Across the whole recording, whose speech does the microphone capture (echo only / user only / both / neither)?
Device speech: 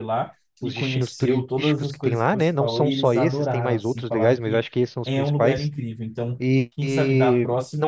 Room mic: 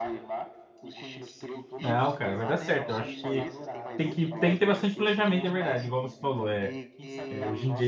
both